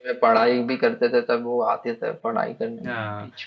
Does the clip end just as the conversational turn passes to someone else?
Yes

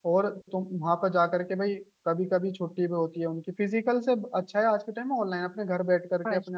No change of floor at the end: No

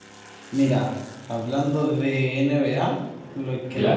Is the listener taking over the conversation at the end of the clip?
No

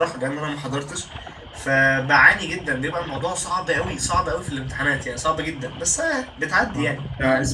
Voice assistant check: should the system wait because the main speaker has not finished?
No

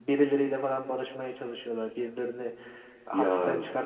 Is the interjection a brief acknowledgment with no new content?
Yes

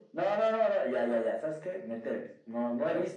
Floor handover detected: Yes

